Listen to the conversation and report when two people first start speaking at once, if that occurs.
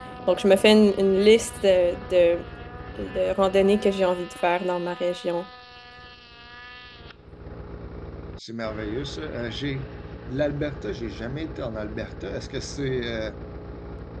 none

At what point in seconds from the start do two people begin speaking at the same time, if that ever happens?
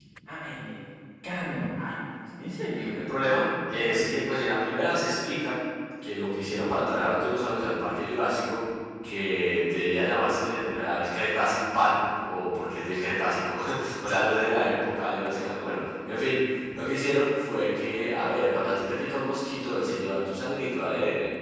2.9 s

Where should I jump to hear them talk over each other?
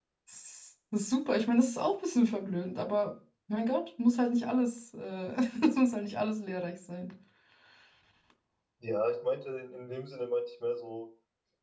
none

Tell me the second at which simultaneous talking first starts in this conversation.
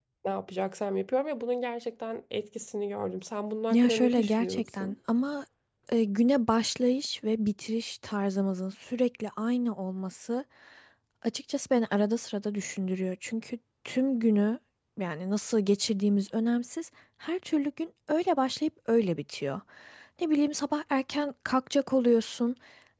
3.7 s

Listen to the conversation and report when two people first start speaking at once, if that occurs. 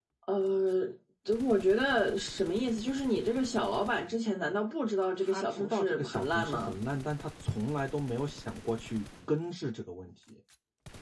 5.2 s

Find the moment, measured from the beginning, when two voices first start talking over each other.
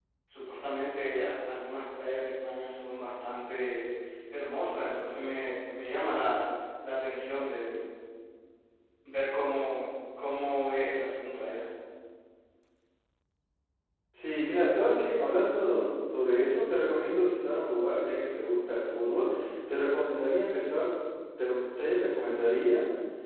none

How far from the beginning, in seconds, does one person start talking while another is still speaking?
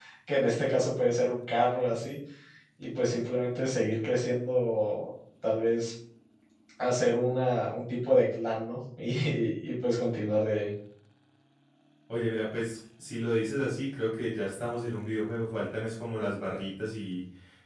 none

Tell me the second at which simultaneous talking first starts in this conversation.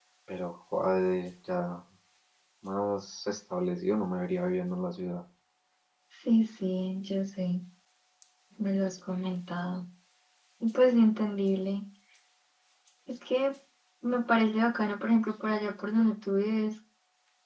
none

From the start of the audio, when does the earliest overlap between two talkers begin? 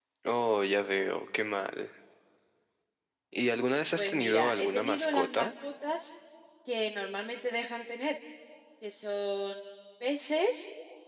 4.0 s

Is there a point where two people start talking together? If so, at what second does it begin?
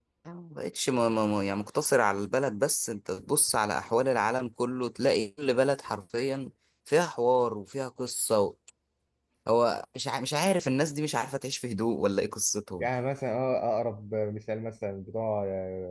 none

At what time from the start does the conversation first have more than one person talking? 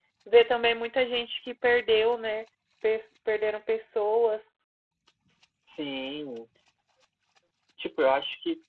none

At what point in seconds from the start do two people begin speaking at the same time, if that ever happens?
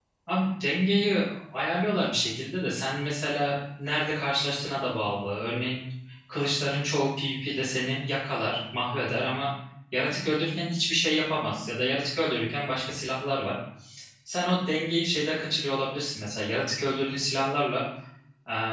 none

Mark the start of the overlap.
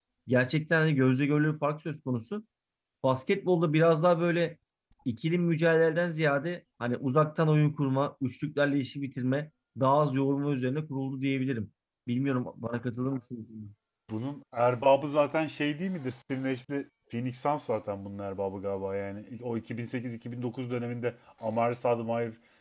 none

